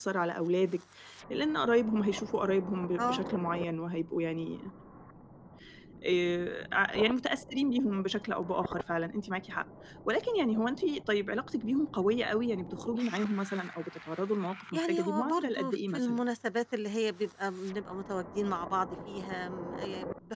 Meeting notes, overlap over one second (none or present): present